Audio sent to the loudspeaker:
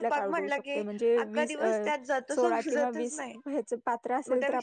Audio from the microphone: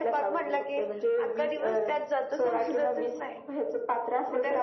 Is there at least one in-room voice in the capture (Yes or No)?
No